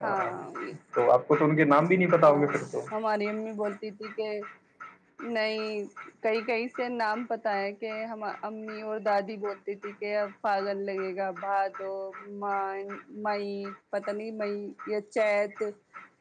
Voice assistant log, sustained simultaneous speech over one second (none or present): none